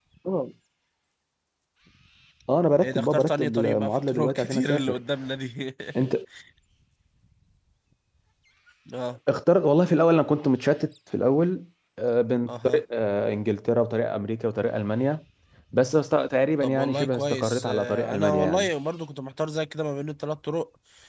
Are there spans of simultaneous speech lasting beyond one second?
Yes, from 2.8 s

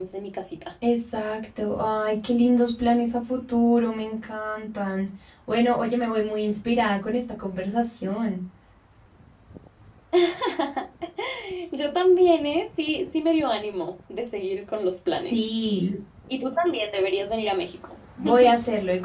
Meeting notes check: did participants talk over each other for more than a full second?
No

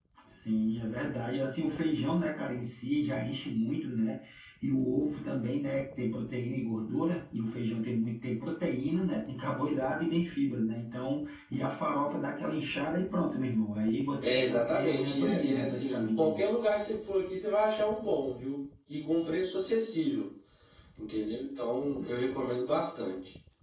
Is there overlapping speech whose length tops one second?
Yes, from 14.2 s

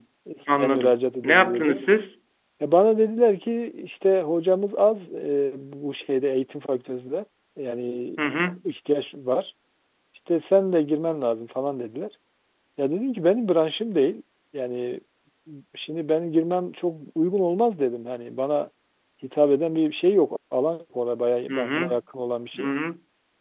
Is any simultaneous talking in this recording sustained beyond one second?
Yes, from 0.6 s

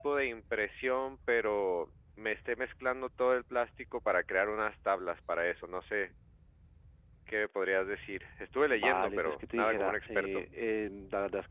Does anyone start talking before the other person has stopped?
Yes, from 8.7 s

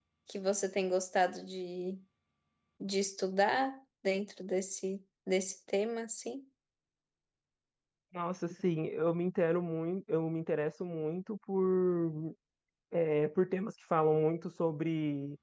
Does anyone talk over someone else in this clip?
No

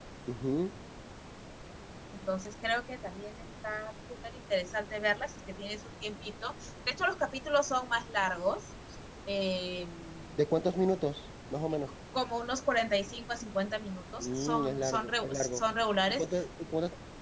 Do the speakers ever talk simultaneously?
Yes, from 14.2 s

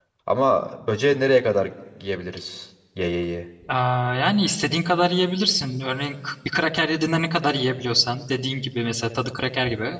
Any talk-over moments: No

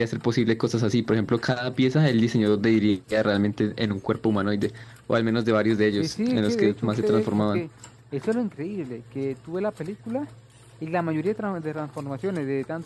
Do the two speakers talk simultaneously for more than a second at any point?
Yes, from 6.0 s

